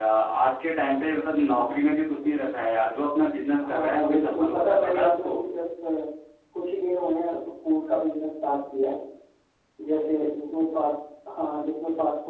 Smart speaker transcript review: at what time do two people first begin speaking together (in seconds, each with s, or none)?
3.6 s